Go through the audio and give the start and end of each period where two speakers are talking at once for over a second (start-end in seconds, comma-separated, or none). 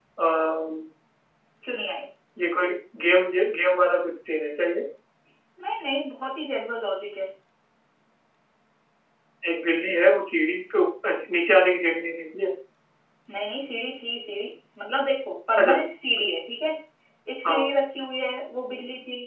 none